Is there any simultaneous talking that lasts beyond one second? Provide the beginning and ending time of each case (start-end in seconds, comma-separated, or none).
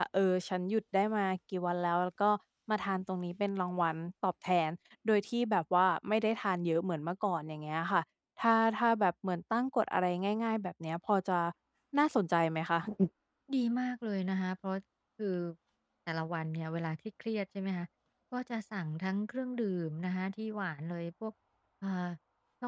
none